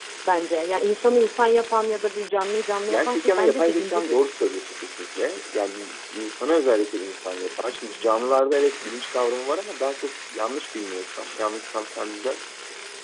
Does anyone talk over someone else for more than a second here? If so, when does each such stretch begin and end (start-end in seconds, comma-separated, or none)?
2.9-4.3